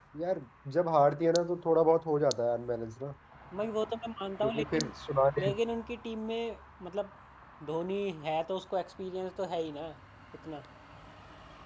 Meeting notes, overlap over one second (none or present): none